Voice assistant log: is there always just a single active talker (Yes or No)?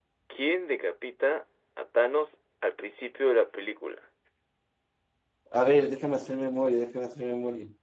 Yes